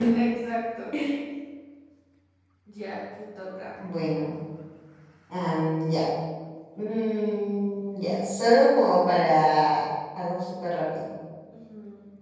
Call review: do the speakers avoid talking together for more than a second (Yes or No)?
Yes